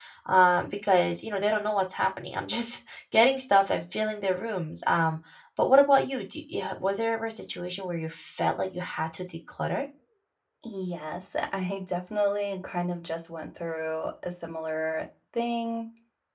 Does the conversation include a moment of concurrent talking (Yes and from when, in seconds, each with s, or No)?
No